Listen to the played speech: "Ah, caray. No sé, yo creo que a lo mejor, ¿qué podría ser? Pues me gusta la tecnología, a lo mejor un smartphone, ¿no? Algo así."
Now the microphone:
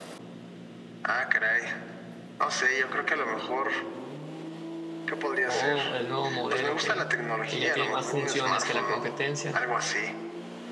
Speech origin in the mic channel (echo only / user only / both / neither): both